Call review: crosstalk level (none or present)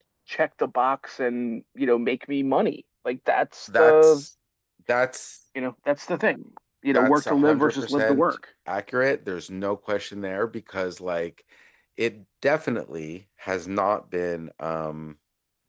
present